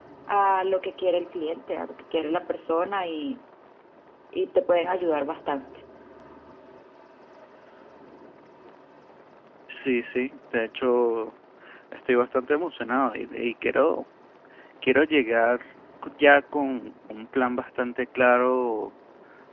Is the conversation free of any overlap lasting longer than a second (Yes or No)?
Yes